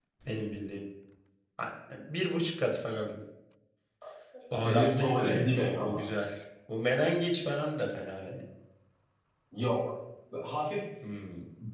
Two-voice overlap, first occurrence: 4.6 s

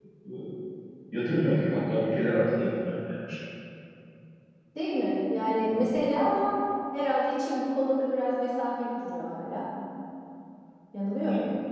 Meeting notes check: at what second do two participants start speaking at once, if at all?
none

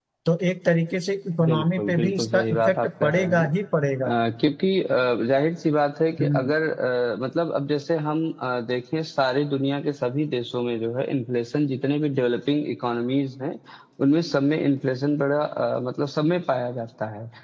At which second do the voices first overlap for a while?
1.4 s

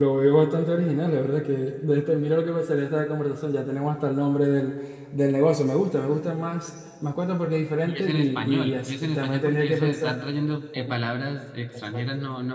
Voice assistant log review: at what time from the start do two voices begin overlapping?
7.9 s

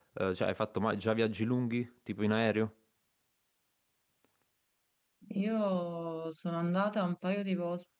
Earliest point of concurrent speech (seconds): none

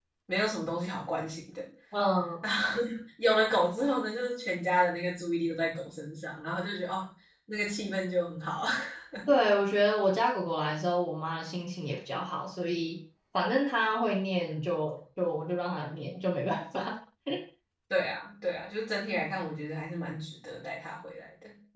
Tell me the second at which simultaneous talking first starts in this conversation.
none

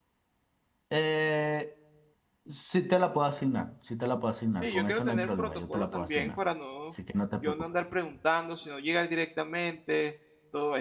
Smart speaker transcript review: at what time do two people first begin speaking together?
4.6 s

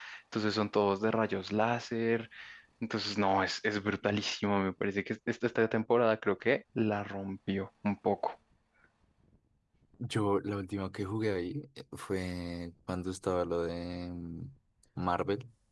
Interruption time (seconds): none

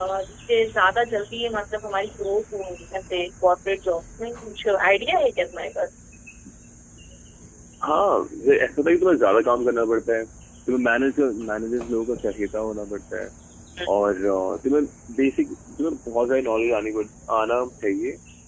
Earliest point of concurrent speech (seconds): none

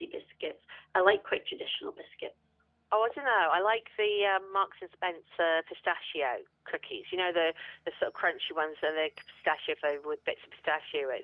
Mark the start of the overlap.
none

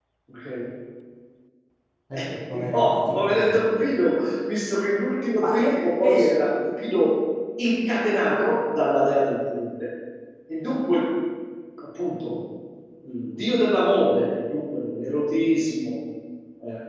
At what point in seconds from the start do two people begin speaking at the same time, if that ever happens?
2.1 s

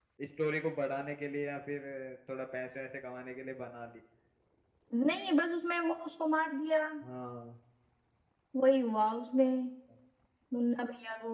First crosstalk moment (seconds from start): none

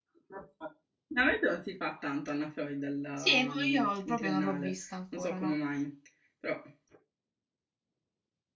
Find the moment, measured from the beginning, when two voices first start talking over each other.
3.2 s

